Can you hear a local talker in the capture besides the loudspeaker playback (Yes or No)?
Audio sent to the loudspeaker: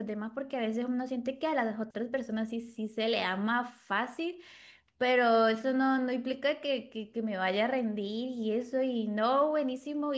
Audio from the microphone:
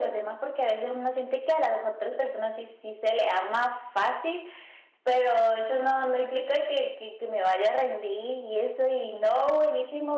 No